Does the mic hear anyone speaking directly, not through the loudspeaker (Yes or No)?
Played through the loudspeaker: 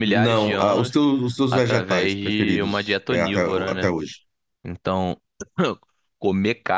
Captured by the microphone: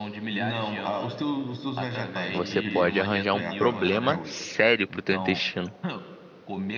Yes